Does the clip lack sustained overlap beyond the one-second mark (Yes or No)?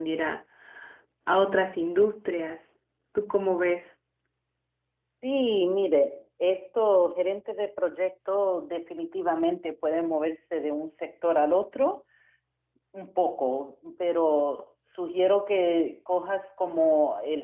Yes